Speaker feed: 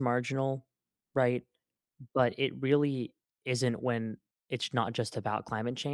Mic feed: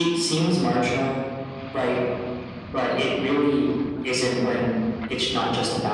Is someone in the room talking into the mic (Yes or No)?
No